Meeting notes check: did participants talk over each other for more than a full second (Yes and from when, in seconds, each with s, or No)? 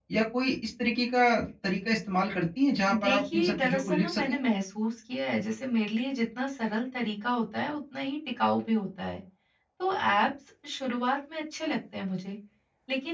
Yes, from 2.9 s